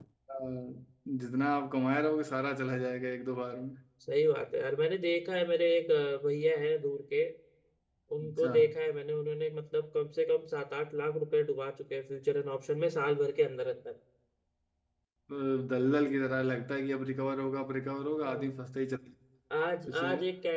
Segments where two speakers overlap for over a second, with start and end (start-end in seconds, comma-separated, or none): none